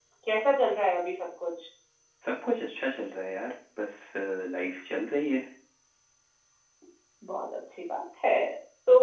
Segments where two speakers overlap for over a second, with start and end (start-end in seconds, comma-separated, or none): none